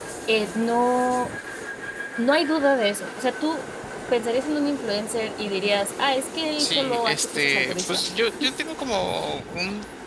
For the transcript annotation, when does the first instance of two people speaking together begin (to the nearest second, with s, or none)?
7 s